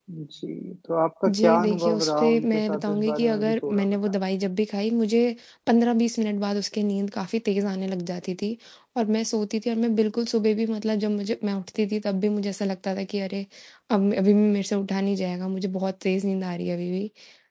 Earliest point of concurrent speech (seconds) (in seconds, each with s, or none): 1.3 s